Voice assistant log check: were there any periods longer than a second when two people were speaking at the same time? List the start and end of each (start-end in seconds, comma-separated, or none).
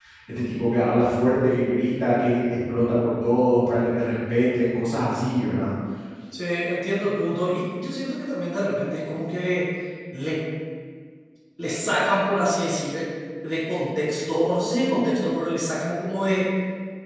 none